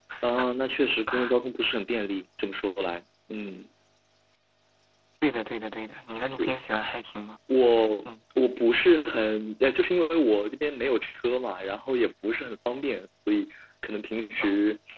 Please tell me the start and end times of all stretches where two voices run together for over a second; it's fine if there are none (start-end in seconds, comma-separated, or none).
none